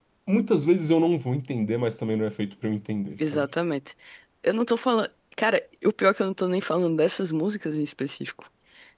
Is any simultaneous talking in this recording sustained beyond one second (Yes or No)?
No